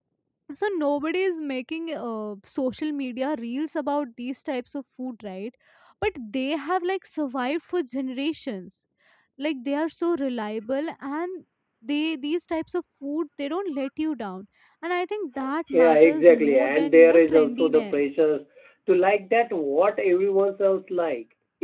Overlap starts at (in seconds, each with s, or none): 15.7 s